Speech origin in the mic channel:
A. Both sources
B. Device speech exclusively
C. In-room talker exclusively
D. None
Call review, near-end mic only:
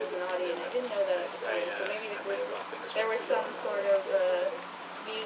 B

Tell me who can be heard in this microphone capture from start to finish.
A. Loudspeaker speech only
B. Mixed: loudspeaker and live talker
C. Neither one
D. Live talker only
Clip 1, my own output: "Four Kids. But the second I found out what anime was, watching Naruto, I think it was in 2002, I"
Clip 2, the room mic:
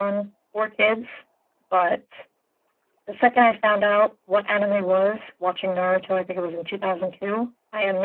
A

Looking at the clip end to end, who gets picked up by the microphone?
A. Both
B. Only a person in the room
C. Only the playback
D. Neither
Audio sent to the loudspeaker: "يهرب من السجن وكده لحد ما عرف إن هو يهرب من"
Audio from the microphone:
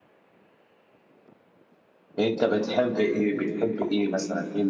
B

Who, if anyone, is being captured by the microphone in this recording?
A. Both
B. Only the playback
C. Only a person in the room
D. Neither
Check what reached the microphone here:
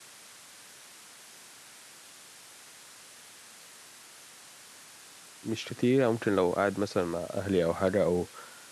C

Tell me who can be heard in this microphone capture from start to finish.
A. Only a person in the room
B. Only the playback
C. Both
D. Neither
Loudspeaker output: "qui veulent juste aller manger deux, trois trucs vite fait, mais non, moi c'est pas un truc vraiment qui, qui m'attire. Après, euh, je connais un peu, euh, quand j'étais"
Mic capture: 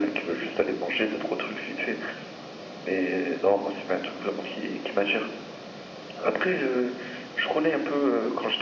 B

